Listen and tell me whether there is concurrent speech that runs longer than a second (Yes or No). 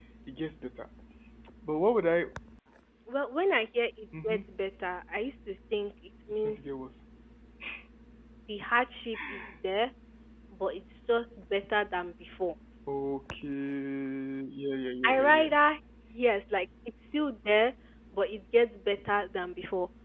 No